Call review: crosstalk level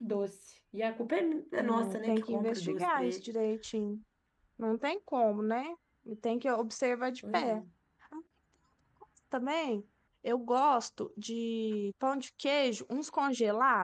present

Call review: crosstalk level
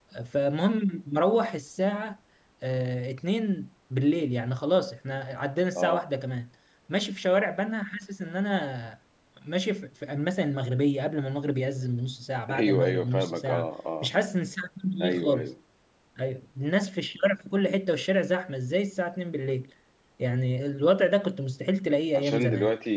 present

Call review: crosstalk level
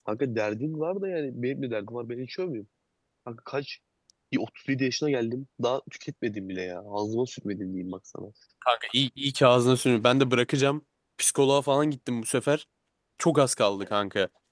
none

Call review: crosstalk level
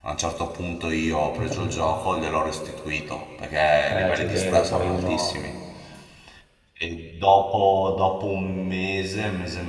present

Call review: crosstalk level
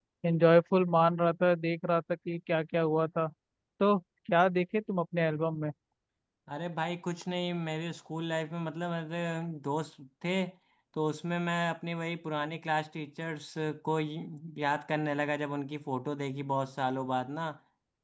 none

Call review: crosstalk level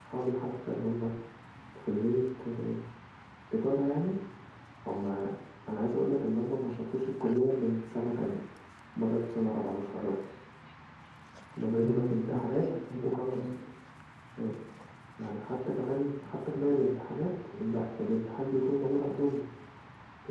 present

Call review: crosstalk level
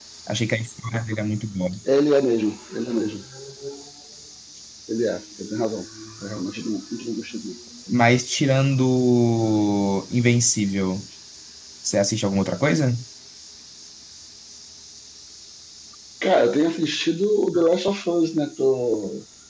none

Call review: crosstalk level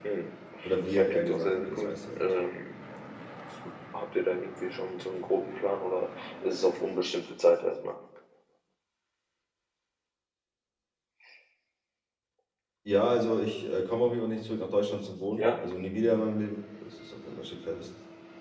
present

